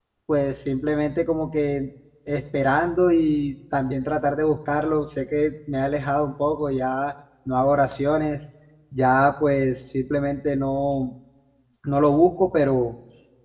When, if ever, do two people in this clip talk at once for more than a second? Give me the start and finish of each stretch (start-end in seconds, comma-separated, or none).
none